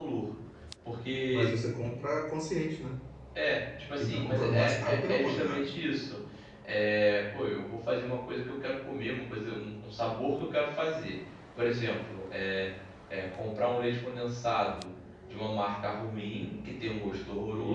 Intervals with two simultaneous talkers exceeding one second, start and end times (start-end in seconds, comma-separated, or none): 4.0-5.7